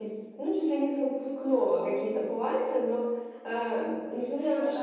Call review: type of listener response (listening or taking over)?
listening